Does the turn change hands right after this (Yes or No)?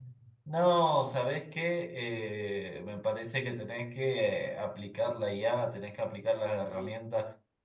No